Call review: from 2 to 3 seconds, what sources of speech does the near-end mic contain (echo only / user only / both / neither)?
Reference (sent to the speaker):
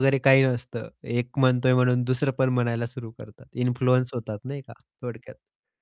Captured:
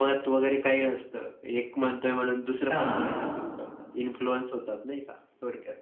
both